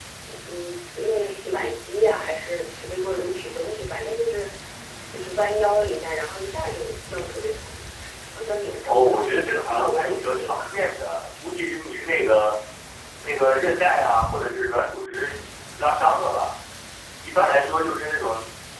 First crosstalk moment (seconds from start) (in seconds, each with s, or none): 8.8 s